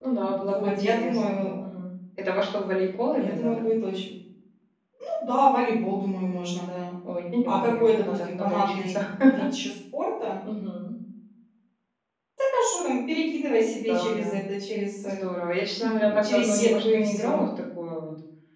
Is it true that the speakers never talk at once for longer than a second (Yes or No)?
No